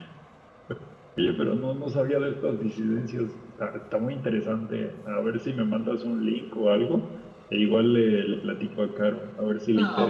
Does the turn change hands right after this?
Yes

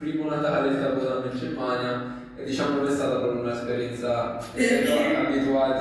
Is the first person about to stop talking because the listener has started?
No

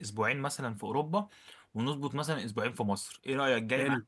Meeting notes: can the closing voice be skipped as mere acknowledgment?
No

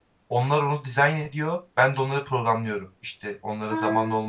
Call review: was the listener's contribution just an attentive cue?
Yes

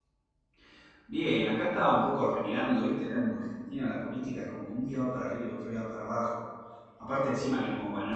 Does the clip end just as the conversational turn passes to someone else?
No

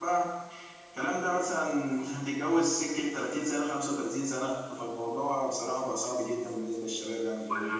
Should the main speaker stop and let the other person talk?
Yes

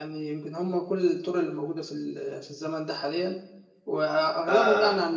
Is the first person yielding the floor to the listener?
No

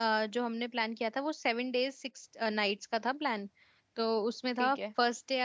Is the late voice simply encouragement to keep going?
Yes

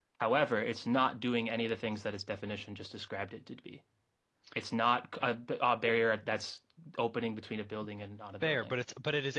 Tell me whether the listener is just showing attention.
No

